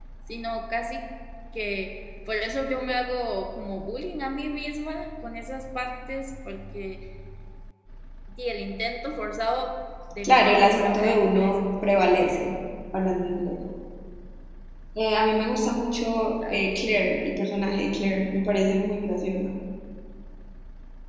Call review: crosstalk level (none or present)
present